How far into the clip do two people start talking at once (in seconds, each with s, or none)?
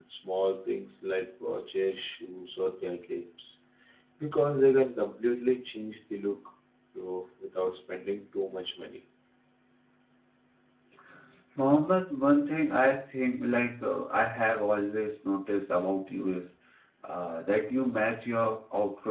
none